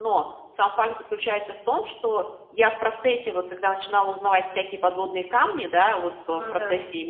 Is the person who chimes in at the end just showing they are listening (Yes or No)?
Yes